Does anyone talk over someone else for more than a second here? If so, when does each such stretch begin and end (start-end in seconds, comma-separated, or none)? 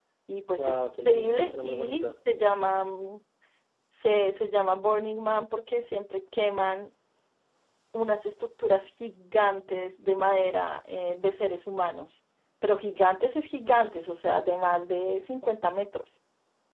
0.6-2.2